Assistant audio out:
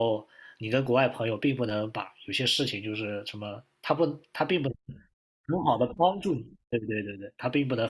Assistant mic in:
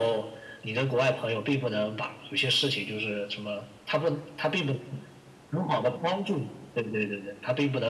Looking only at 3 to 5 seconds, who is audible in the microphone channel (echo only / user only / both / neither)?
echo only